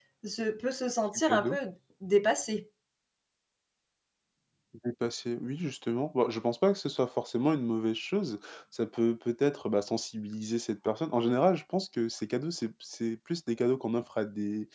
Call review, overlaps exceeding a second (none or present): none